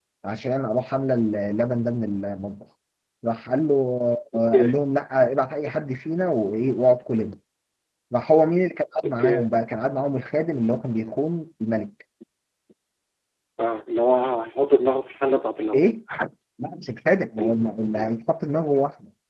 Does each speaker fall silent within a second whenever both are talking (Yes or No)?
Yes